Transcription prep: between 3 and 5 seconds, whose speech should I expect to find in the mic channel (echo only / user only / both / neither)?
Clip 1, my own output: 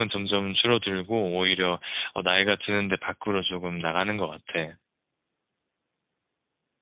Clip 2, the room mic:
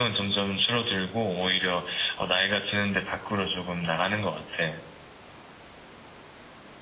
echo only